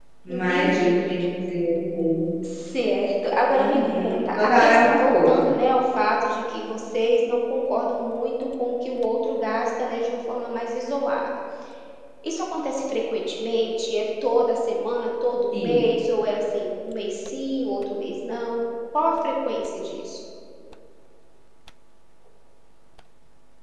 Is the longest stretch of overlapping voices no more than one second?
No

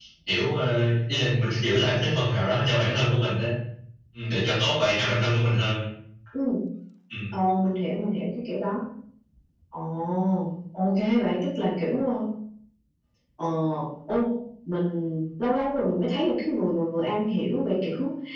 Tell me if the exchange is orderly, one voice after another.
Yes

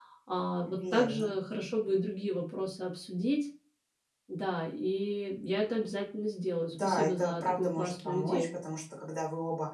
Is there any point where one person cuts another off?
Yes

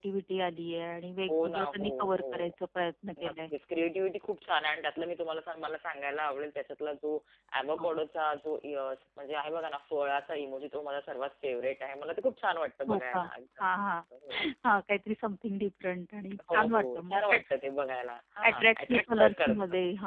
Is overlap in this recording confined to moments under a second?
No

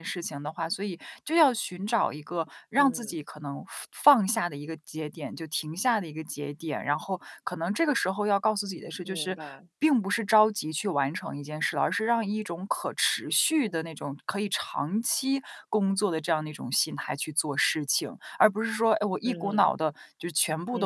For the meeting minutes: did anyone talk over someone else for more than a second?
No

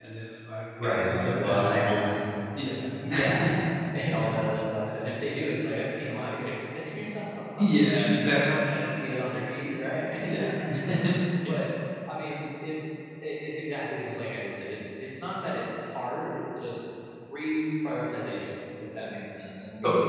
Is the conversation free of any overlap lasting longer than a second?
No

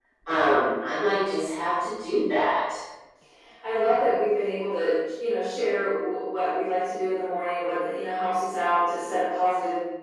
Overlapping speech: No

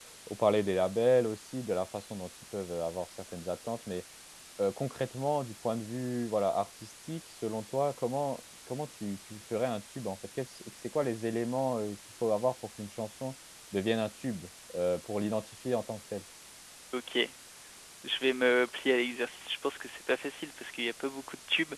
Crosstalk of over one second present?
No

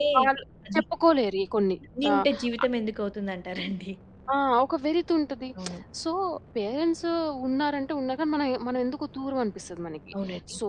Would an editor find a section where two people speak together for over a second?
No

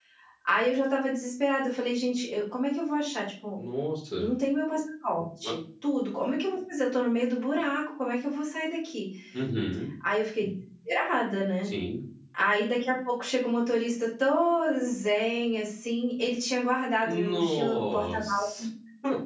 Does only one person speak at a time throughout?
No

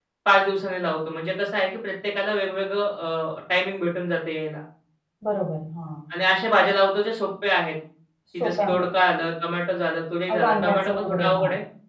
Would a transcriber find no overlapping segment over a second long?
No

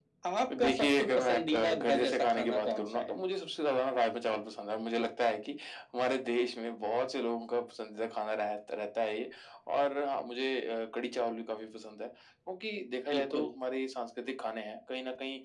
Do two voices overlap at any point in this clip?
Yes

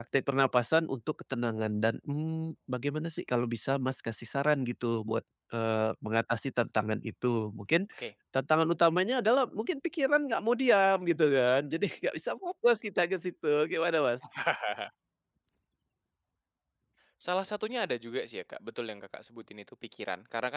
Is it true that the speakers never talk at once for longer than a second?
Yes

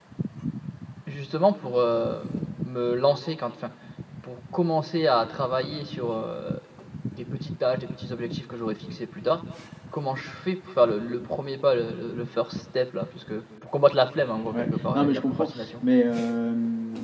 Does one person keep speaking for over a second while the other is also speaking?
Yes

